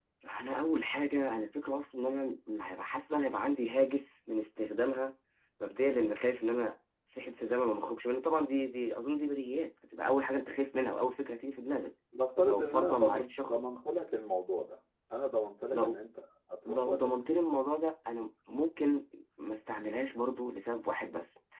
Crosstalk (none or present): present